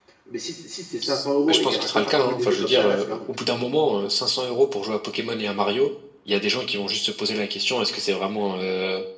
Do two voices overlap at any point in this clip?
Yes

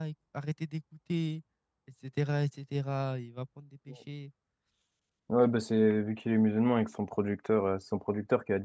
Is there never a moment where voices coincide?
Yes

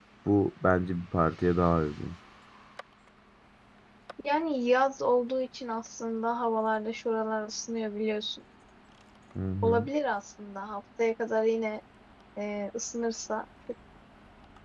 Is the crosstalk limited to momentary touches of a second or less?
Yes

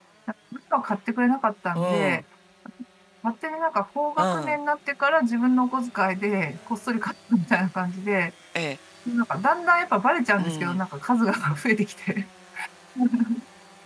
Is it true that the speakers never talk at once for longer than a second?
Yes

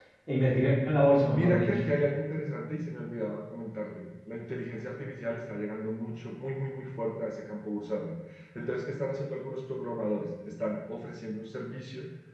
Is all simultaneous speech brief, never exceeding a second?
Yes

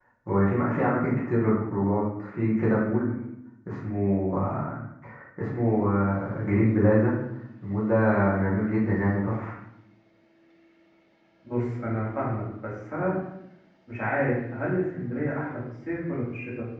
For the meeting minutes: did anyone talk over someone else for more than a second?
No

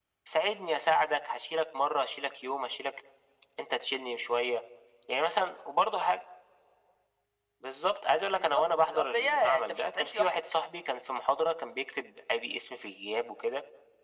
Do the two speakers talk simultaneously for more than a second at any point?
Yes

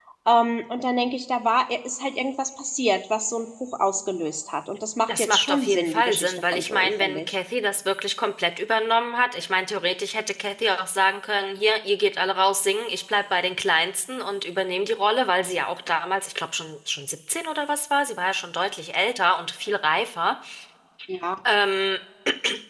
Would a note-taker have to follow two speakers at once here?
Yes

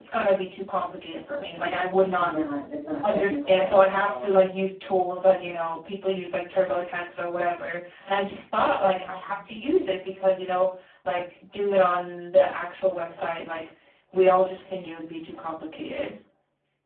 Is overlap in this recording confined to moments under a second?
No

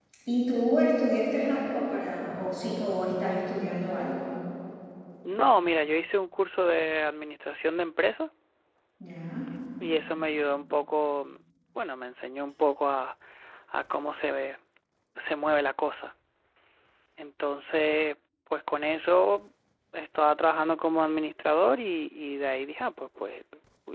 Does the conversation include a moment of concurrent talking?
No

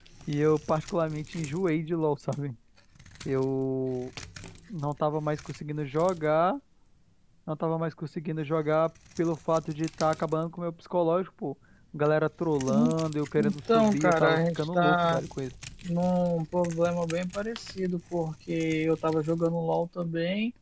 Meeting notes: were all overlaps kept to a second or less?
No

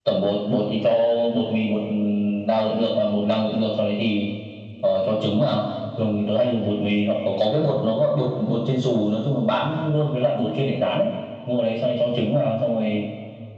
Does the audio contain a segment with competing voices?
No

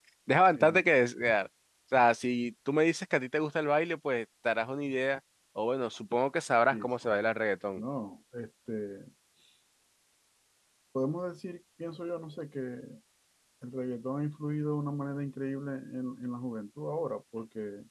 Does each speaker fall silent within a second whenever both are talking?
Yes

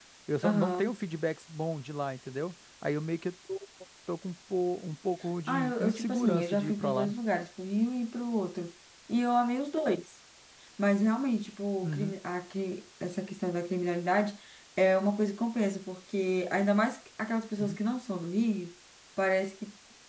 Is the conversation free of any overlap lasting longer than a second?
No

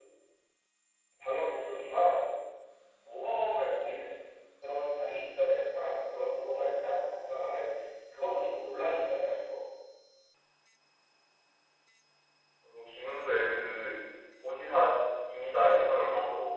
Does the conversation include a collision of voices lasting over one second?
No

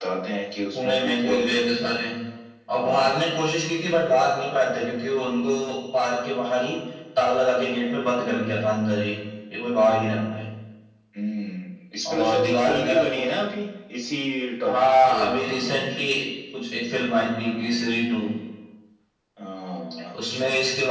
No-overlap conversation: No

